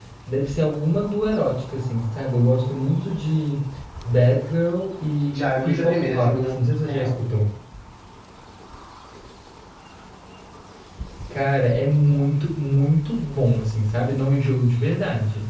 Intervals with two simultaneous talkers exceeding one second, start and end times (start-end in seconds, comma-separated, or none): 5.3-7.2